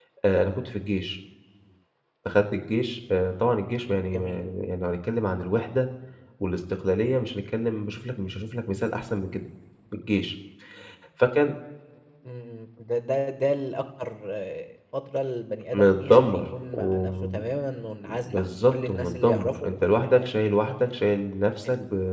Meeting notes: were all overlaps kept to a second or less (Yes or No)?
No